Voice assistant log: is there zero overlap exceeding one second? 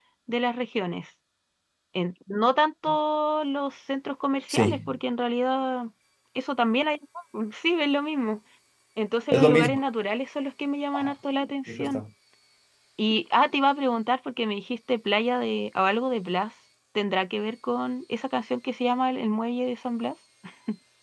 Yes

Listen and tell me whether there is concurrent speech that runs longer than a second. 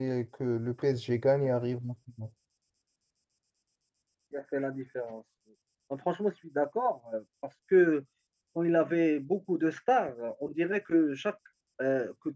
No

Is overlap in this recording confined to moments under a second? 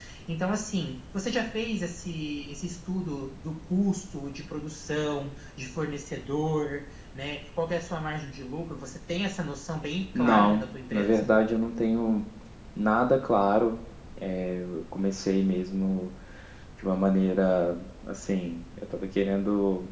No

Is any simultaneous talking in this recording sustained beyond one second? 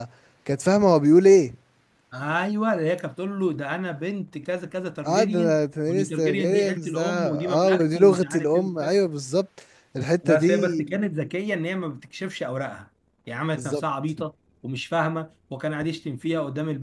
Yes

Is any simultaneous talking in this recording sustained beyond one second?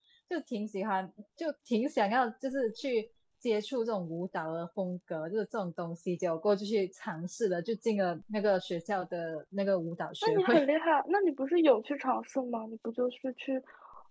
No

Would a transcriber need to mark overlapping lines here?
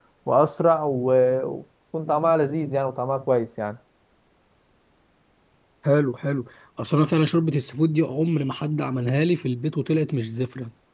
No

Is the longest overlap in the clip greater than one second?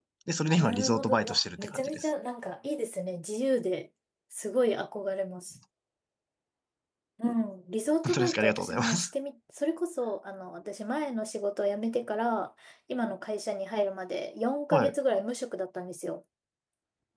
Yes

